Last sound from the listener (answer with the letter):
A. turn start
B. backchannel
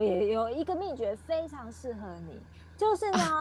B